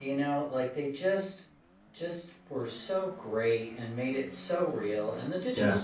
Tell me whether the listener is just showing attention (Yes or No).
Yes